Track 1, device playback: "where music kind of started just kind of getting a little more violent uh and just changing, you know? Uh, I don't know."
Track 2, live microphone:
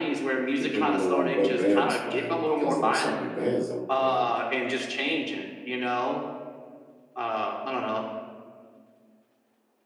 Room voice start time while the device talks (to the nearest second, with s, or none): 1 s